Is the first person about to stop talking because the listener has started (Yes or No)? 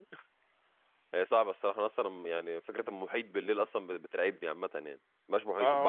Yes